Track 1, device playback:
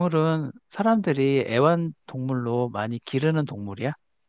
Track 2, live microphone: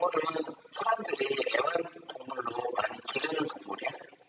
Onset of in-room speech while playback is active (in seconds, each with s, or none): none